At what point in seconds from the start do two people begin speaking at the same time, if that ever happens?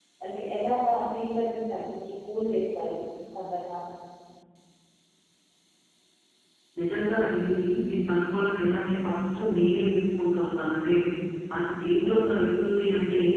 none

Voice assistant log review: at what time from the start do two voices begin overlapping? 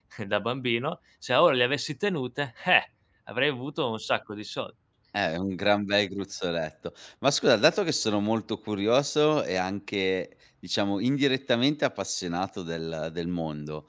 none

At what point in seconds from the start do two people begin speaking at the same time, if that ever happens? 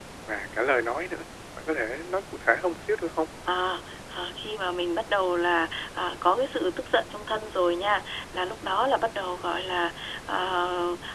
none

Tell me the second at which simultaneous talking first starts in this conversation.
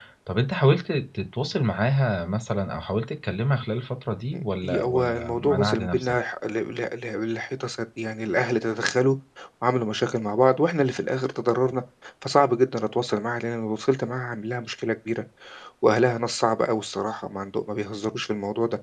4 s

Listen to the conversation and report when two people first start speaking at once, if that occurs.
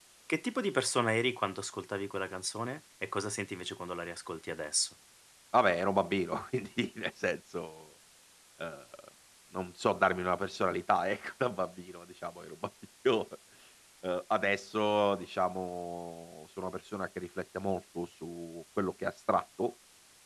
none

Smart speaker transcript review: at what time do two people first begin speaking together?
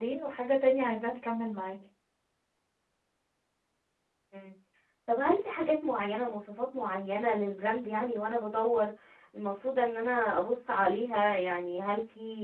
none

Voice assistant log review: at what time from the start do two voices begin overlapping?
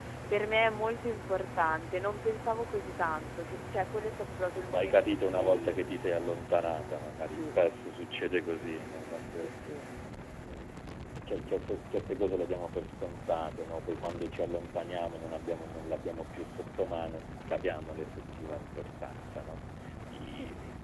5 s

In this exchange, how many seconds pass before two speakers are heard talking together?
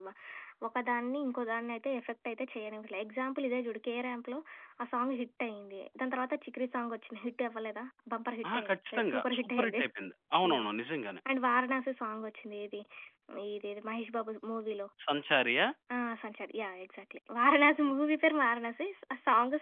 8 s

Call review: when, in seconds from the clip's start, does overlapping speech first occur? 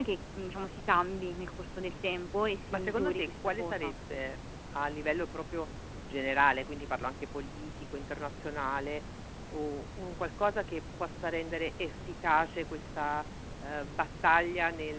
3 s

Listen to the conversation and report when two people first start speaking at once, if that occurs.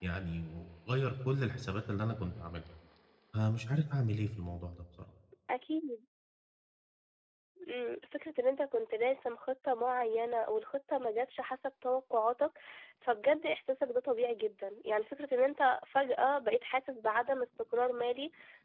none

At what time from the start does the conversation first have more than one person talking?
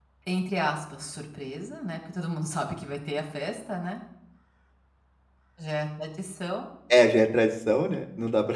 none

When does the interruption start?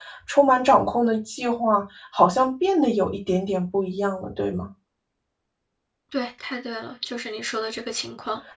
none

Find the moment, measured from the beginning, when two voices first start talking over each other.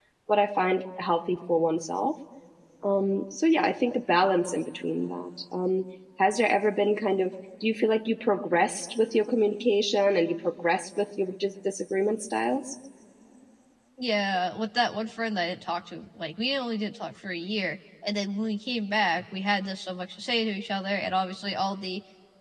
none

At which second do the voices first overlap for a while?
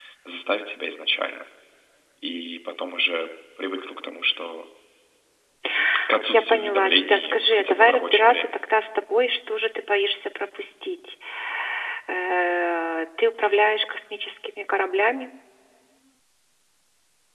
6 s

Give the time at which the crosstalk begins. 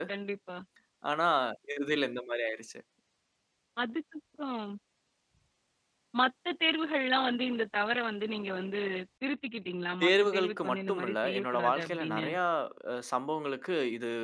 10 s

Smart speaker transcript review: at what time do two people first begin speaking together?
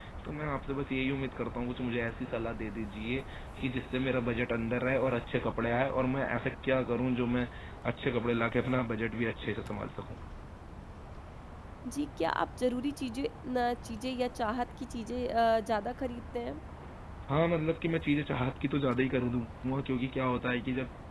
none

